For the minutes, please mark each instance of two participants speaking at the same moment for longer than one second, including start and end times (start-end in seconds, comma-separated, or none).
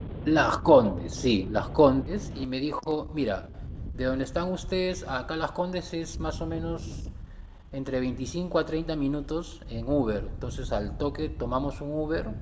none